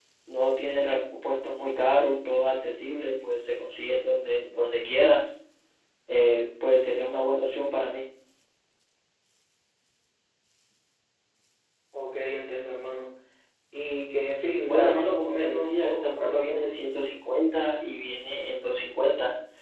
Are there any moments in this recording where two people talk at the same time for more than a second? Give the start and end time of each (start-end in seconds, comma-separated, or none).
14.6-16.8